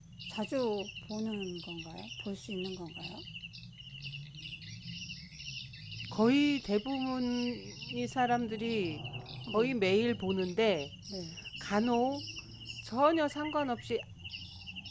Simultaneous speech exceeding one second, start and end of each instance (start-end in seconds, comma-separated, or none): none